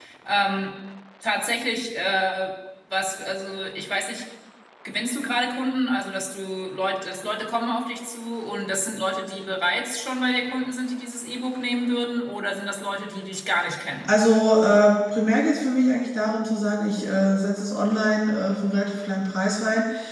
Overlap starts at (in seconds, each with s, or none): none